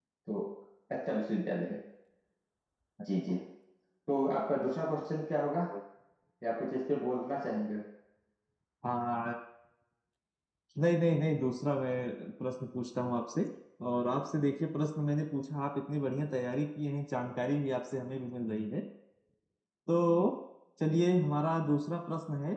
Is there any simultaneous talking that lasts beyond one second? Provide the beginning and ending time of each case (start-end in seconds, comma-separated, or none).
none